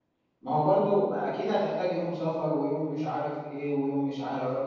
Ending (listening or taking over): taking over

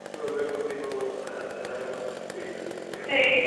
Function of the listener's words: taking over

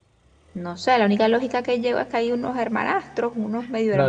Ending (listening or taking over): taking over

